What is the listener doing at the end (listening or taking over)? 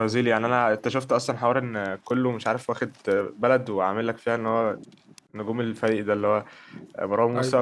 listening